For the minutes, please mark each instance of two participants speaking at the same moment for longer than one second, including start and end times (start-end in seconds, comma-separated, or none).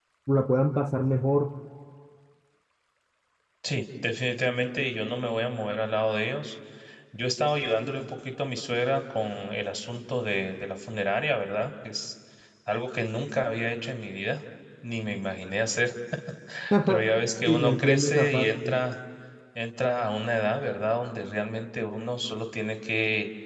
17.5-18.8